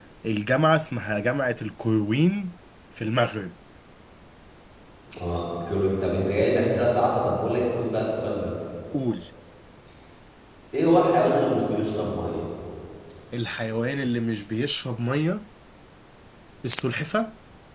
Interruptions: none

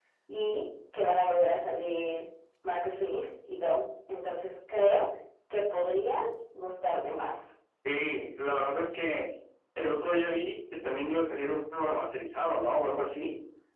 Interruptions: none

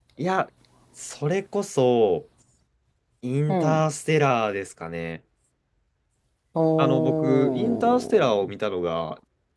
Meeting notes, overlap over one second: present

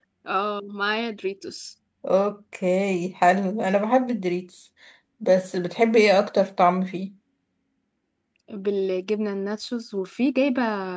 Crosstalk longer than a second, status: none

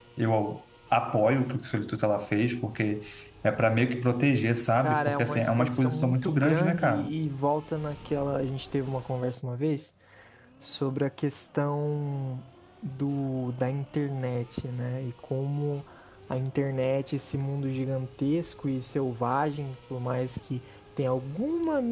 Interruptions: present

